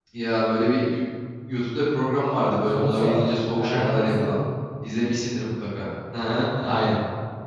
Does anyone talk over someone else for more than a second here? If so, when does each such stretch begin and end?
2.7-4.3

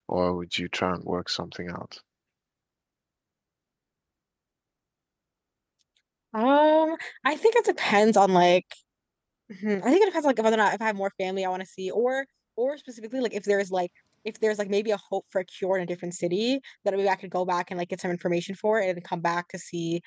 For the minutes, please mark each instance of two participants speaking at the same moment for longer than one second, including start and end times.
none

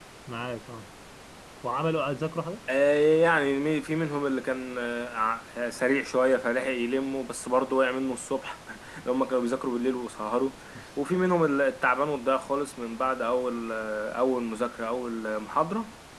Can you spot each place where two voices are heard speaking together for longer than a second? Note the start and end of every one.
none

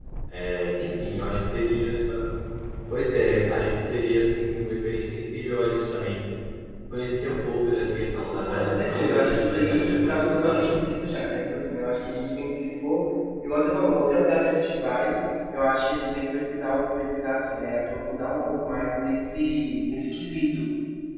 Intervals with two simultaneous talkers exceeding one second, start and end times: 8.4-10.7

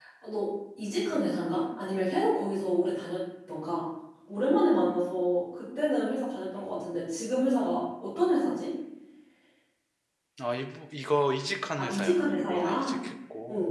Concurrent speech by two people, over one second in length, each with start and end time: 11.8-13.0

